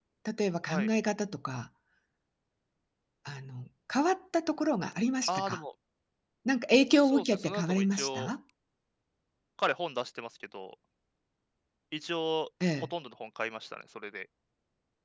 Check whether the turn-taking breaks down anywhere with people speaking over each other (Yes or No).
Yes